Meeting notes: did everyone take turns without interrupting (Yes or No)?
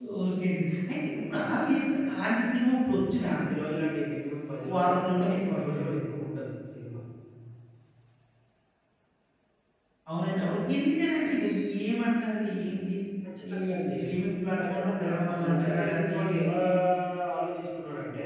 No